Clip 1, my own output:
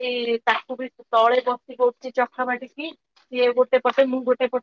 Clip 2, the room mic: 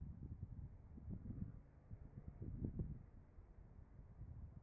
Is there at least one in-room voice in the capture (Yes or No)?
No